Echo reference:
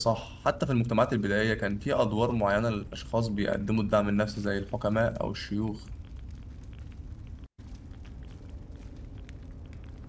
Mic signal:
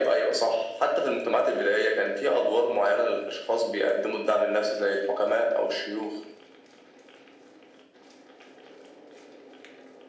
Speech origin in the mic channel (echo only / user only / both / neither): echo only